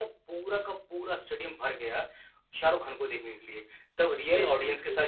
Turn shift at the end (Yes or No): No